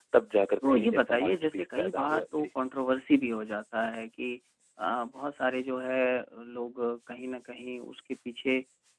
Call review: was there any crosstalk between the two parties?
Yes, from 0.7 s

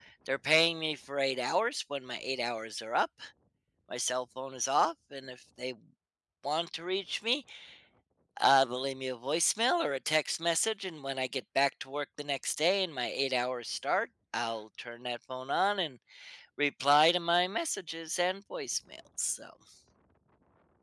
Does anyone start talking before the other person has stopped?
No

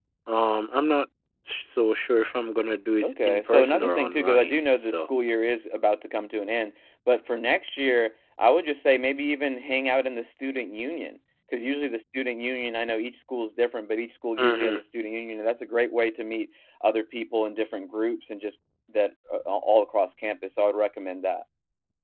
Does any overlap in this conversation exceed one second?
Yes, from 3.0 s

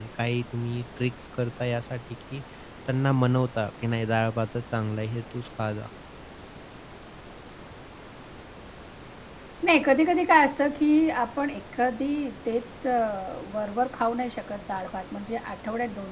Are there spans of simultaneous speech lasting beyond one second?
No

